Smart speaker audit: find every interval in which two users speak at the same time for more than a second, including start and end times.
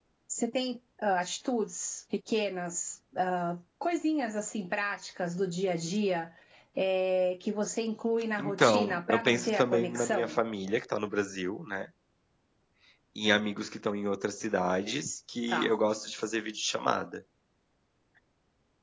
8.4-10.4

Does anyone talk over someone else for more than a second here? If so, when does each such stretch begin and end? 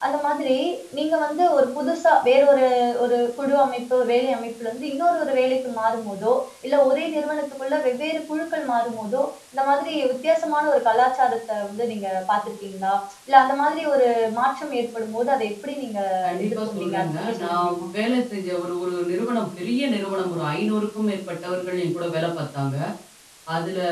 16.4-17.8

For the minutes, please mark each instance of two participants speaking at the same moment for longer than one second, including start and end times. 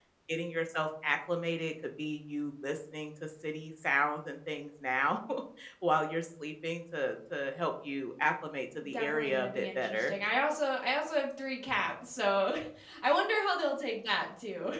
8.9-10.1

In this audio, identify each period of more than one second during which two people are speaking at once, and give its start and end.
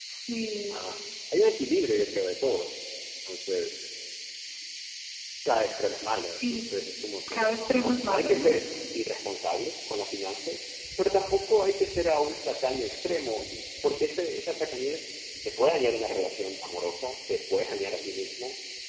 7.3-8.6

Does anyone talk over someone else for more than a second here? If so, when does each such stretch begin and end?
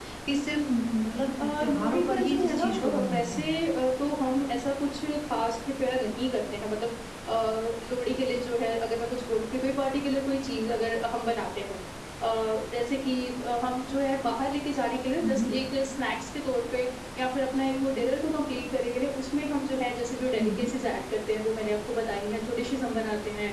1.4-3.6

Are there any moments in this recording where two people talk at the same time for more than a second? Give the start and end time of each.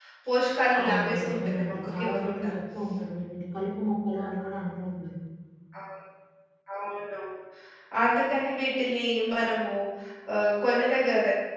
0.8-2.5

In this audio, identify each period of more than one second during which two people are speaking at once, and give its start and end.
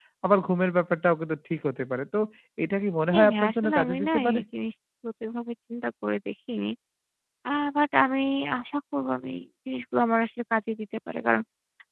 3.1-4.4

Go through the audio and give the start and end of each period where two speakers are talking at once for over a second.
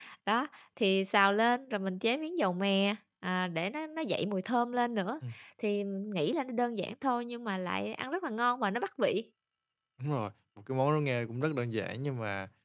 none

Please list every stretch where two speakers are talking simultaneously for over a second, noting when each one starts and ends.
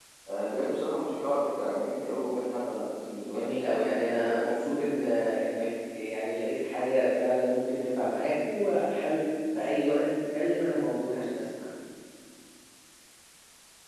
3.2-4.9

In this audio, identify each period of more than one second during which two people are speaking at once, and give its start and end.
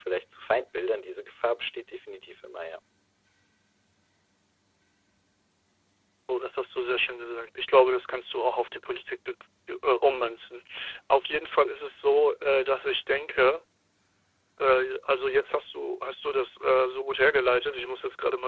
none

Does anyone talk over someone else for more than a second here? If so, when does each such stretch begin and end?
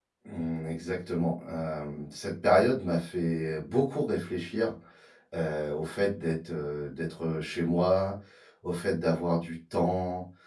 none

